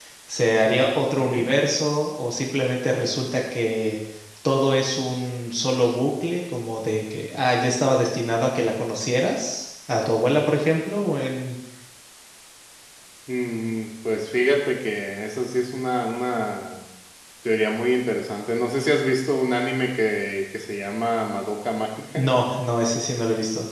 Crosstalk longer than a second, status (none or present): none